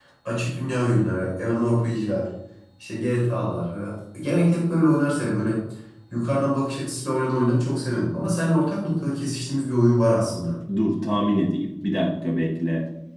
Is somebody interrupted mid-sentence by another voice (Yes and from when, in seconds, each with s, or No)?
No